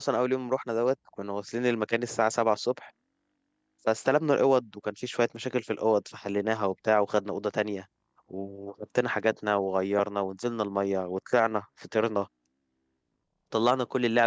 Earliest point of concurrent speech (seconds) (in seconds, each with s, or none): none